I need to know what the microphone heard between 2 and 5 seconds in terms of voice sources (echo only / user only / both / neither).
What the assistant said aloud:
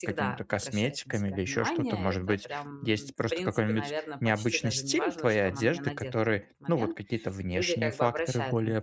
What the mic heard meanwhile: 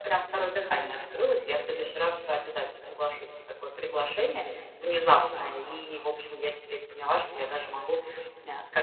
user only